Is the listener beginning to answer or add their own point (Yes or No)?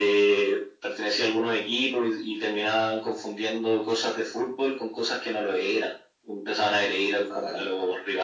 No